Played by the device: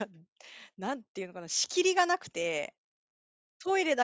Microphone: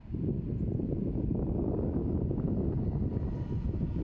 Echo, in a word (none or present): none